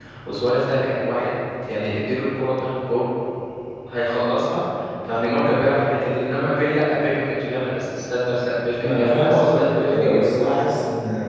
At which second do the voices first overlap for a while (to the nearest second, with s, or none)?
9 s